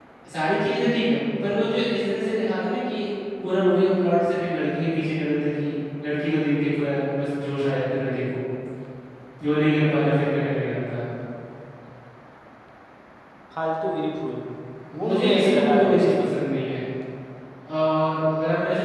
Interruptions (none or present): present